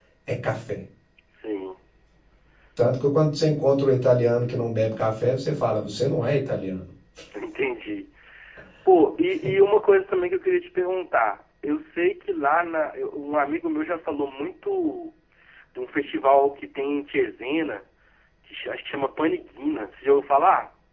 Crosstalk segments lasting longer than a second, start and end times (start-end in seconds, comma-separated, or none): none